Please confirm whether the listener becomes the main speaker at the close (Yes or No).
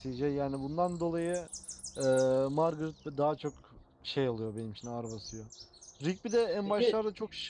No